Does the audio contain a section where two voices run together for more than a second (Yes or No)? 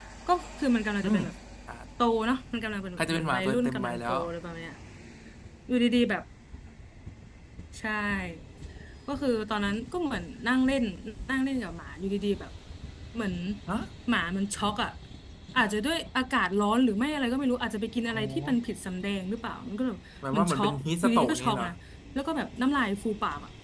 Yes